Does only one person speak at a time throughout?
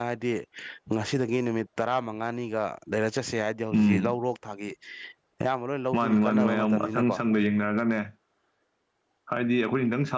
No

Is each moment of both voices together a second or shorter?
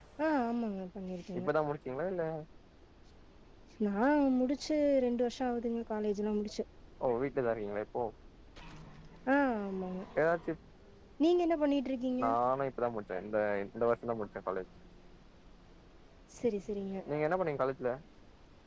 Yes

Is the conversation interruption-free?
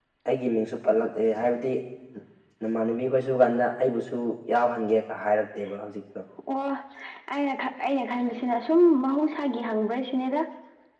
Yes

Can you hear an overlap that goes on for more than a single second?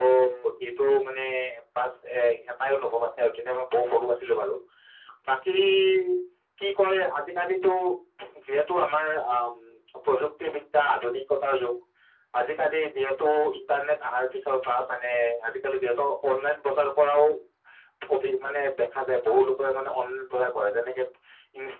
No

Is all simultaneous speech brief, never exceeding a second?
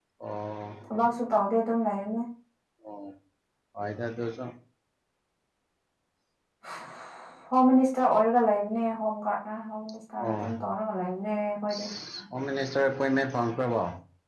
Yes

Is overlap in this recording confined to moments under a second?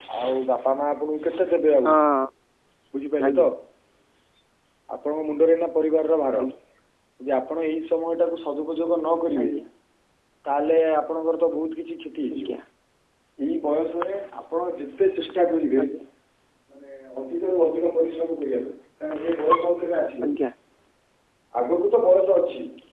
Yes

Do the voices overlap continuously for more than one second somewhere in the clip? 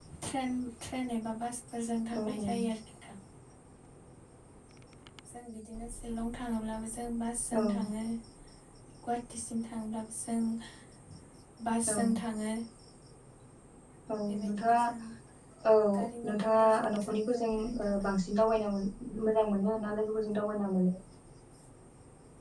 Yes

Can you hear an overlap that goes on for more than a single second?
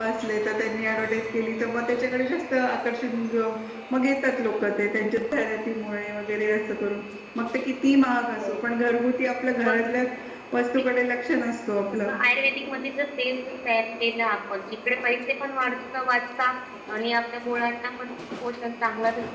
No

